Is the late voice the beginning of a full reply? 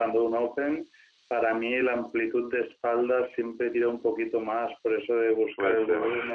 No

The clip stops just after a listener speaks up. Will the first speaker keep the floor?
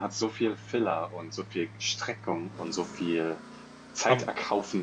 Yes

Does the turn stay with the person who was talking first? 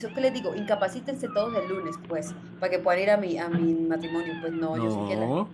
Yes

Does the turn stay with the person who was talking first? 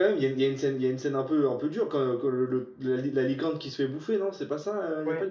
No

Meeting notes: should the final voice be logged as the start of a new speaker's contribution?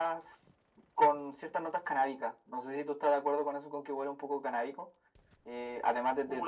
Yes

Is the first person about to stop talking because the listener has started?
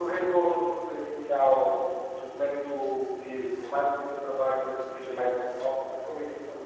Yes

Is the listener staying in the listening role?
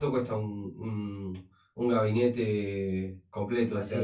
No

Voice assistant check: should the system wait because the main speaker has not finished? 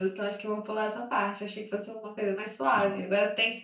Yes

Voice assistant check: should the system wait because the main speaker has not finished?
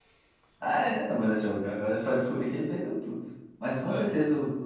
Yes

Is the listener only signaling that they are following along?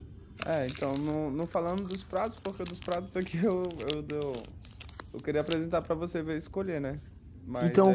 No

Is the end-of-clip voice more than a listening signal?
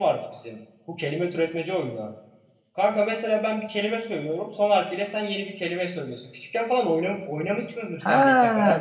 Yes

